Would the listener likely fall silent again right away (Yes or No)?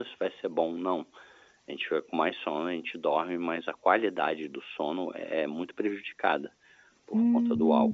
No